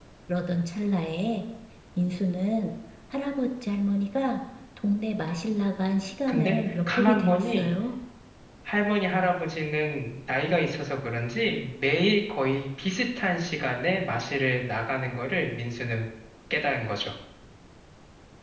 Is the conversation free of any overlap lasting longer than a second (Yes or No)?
No